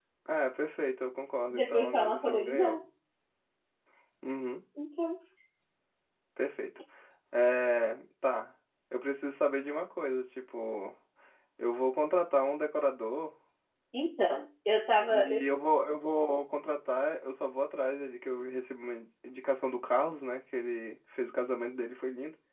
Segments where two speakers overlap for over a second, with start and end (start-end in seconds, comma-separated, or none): 1.5-2.8